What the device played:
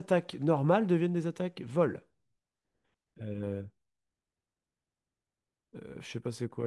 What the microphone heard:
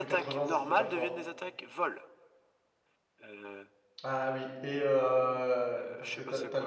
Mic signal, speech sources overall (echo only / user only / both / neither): both